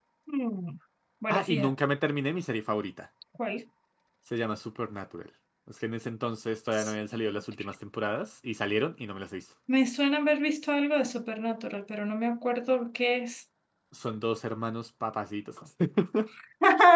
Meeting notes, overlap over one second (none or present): none